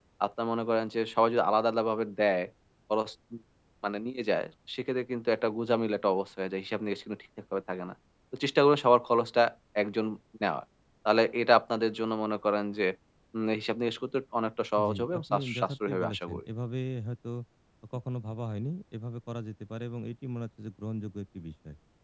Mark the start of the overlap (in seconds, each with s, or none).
14.8 s